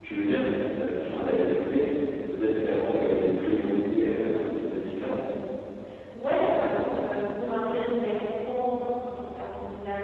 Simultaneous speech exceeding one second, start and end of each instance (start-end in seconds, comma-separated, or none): none